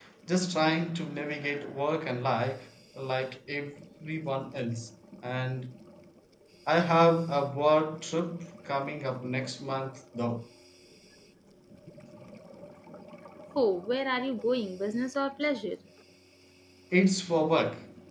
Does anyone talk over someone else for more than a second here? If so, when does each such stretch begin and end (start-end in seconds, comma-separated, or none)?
none